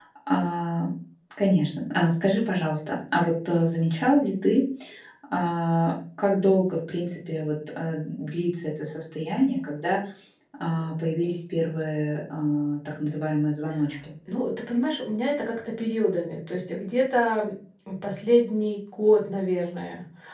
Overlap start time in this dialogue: none

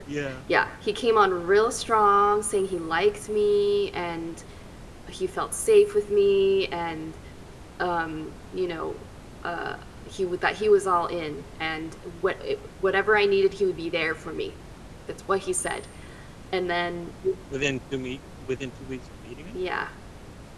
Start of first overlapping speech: none

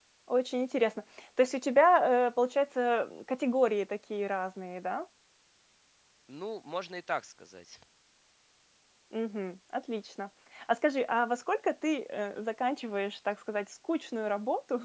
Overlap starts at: none

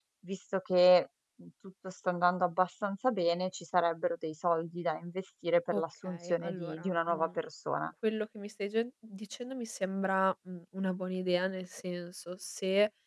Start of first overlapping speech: 5.7 s

